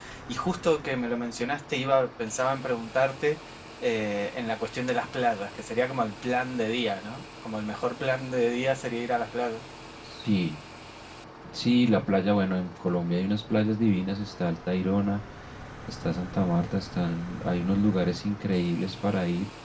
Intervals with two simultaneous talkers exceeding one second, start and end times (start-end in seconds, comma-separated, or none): none